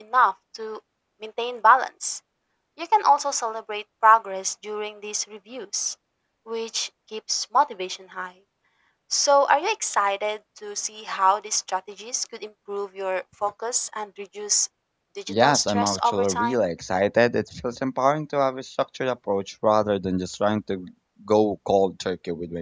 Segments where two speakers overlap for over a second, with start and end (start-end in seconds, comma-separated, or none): 15.3-16.6